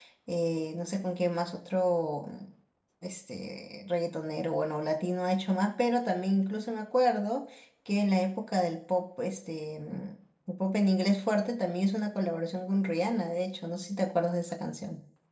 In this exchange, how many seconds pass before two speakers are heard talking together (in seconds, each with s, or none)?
none